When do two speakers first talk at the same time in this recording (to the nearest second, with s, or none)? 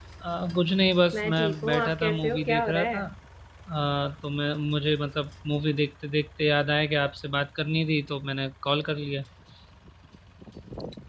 1 s